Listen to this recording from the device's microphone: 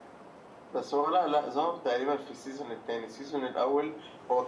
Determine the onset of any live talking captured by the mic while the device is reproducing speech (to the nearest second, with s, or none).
none